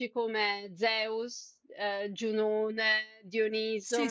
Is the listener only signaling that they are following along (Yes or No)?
Yes